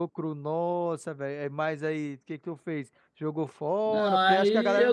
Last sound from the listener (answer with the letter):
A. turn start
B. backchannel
A